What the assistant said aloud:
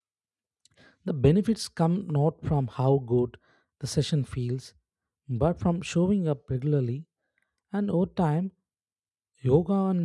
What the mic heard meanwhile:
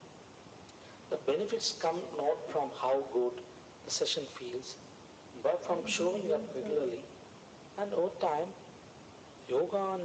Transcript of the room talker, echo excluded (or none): like they helps a